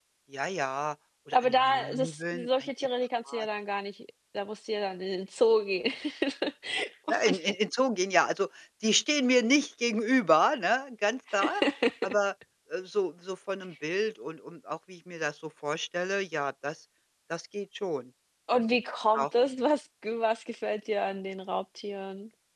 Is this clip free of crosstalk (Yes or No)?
No